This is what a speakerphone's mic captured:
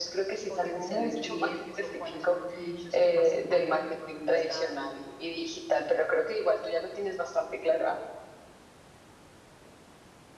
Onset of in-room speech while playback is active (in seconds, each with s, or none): 0.4 s